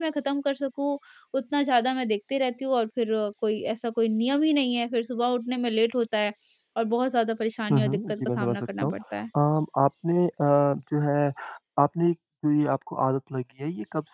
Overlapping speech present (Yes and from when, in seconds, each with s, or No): Yes, from 7.7 s